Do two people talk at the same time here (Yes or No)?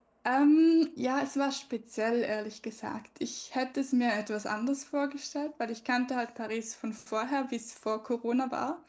No